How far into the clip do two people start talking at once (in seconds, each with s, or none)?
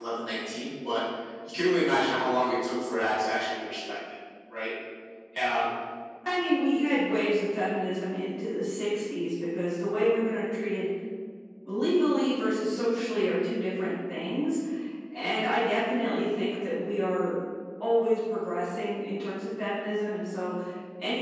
none